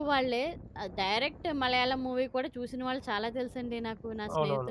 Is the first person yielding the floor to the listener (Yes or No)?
Yes